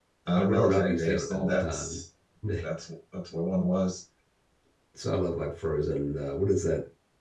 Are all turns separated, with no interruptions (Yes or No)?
No